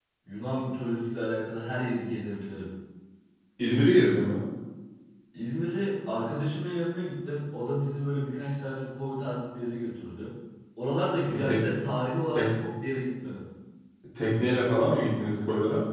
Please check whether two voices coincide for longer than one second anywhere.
No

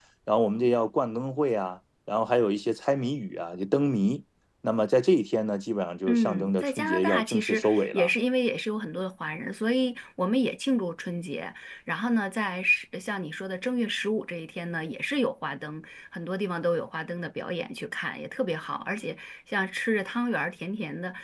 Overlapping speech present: Yes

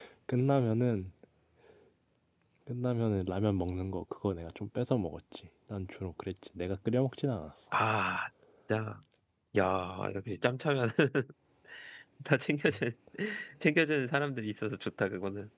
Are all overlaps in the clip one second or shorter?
Yes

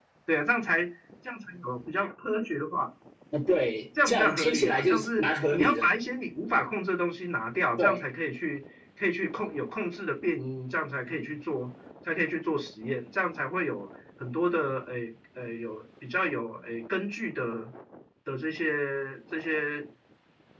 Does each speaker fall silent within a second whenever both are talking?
No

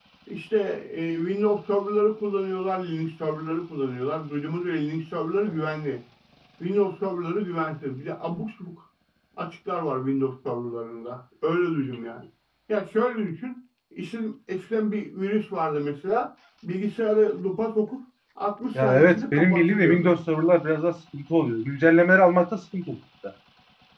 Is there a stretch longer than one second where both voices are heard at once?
Yes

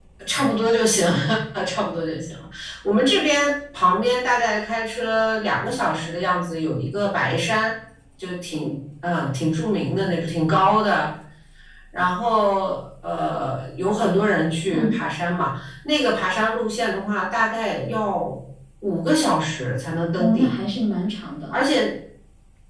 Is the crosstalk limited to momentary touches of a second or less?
Yes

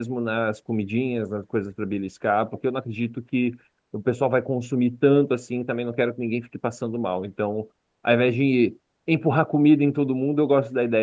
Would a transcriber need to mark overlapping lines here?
No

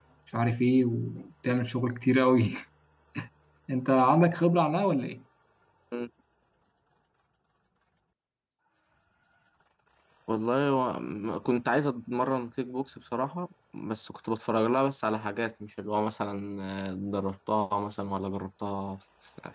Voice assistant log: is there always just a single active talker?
Yes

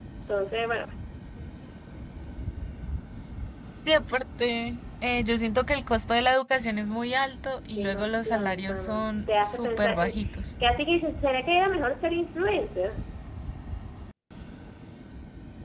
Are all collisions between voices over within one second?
No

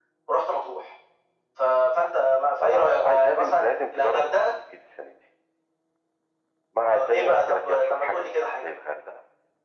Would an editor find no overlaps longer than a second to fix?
No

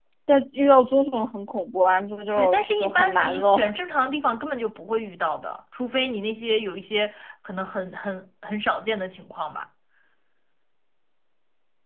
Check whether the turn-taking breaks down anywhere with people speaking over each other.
Yes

